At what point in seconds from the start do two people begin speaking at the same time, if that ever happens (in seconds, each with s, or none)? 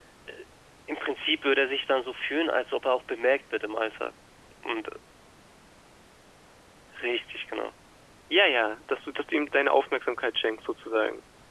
none